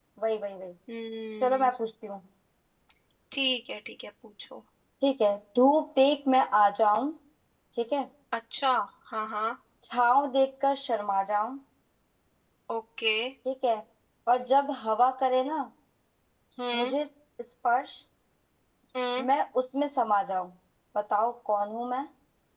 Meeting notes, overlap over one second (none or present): none